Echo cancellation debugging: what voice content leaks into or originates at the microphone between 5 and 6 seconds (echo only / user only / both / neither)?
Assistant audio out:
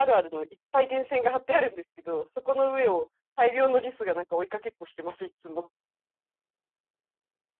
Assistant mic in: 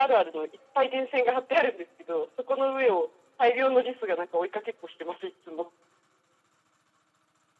echo only